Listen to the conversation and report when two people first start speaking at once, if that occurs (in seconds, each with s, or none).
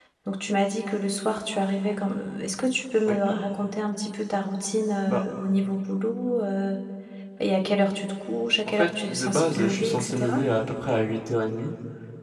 8.8 s